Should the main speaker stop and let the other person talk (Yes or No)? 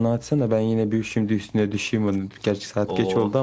No